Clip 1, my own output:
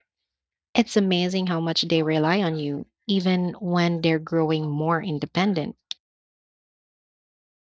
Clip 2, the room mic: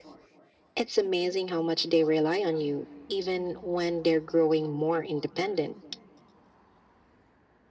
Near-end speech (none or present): none